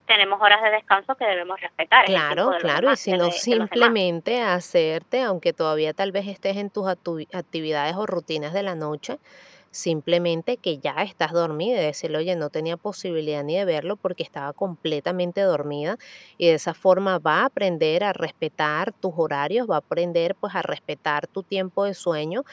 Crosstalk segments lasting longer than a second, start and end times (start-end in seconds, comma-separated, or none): 2.1-4.1